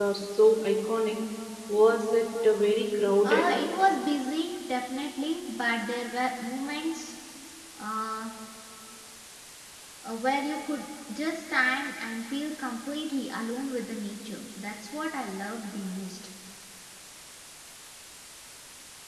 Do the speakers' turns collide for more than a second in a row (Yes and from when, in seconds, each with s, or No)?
No